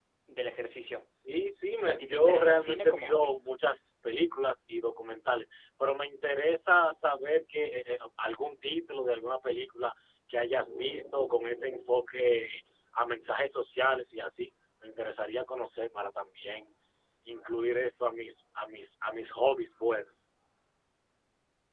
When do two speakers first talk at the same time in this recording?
1.8 s

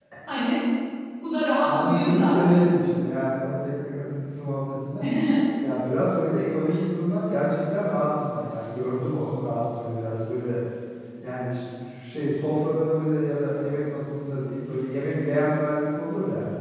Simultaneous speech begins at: 1.6 s

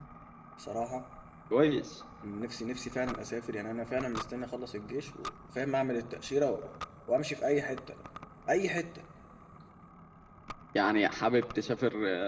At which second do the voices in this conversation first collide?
none

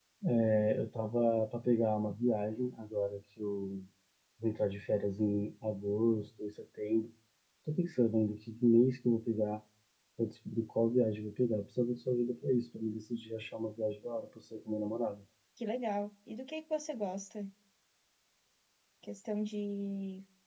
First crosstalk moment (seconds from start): none

